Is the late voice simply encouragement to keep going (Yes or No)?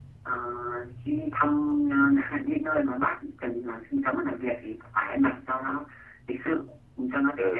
No